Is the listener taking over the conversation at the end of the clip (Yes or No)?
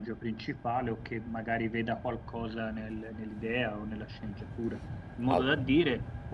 No